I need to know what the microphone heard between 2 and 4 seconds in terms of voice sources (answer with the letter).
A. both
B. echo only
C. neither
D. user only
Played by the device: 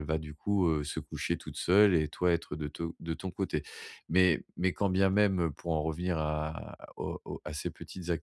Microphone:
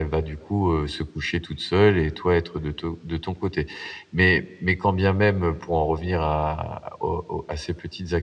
B